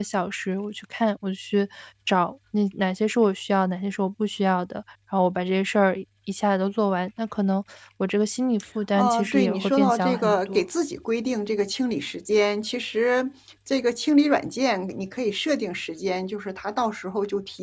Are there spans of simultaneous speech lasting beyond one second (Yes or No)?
Yes